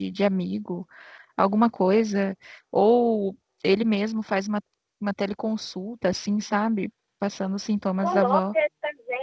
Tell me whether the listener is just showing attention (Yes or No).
No